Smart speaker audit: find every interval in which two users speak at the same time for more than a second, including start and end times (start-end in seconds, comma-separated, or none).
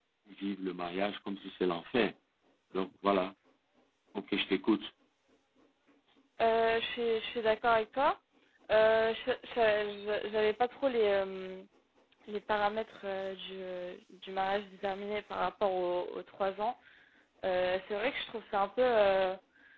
none